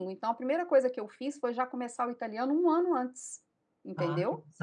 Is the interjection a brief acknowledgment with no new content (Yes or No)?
No